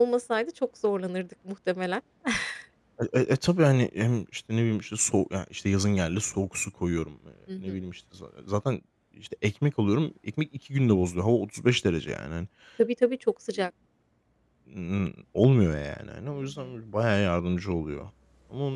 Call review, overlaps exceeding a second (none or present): none